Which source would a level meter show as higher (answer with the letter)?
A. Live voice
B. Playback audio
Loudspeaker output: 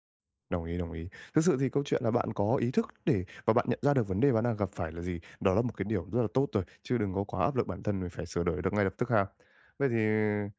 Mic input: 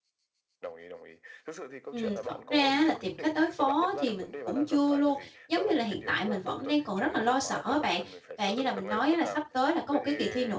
A